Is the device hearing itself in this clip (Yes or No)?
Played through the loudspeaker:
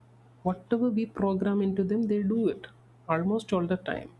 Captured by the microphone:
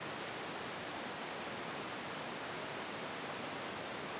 No